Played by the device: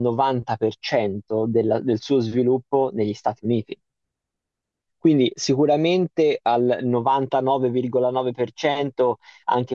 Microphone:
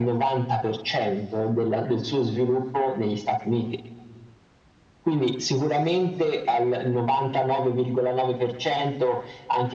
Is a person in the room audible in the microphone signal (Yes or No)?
No